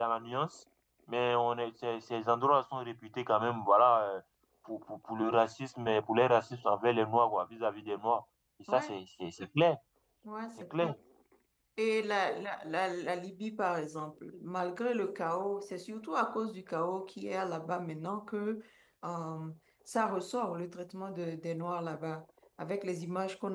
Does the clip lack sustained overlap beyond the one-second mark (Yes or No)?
Yes